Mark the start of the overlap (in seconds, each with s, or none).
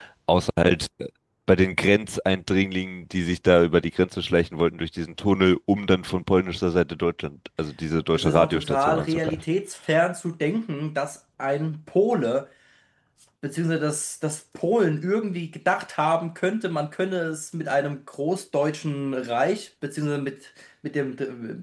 8.1 s